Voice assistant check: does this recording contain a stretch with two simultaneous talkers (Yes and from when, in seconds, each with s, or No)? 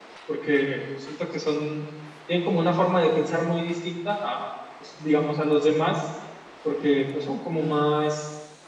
No